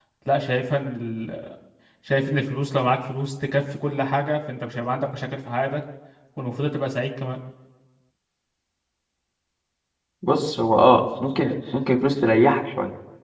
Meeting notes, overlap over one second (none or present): none